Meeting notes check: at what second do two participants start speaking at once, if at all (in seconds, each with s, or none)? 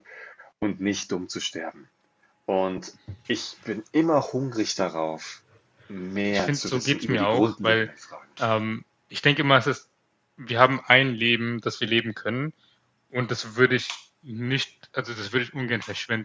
6.3 s